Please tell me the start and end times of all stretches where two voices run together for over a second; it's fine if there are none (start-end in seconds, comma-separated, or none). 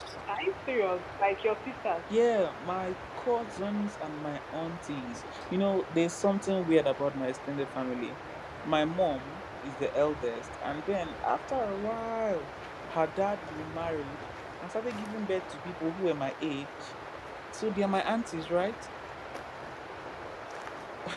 none